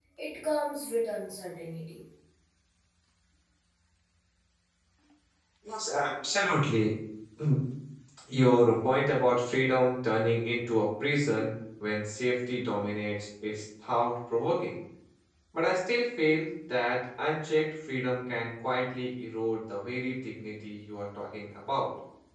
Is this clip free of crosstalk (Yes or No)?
Yes